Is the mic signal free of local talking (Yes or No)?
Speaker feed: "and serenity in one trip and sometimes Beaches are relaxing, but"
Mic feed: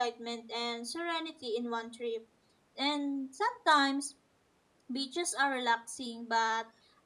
Yes